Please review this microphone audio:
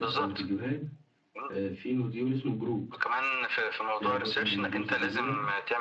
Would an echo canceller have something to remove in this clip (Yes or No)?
Yes